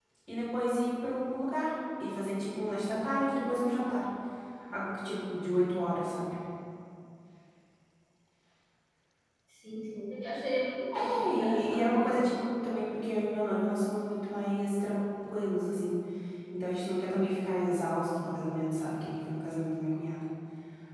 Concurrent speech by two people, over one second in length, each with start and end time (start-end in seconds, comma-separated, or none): 11.0-12.3